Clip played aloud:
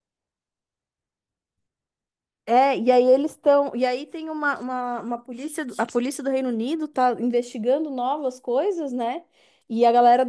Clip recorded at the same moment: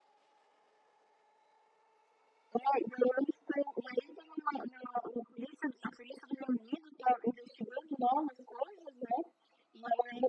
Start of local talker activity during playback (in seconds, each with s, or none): none